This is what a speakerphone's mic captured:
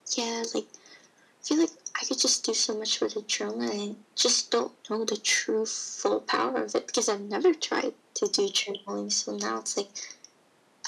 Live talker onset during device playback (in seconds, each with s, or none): none